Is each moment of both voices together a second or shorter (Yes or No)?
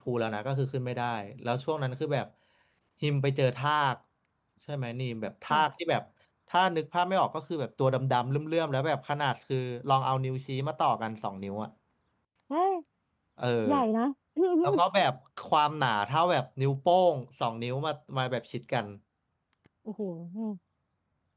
Yes